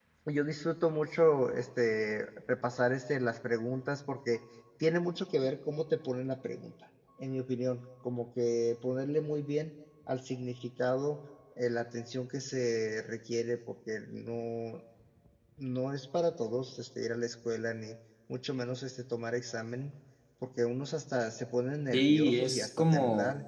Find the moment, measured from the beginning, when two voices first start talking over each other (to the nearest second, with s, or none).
22 s